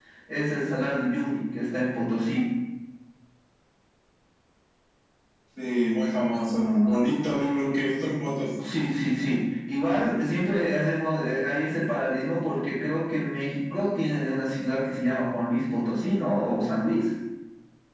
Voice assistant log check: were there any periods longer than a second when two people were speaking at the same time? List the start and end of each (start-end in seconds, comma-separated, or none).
none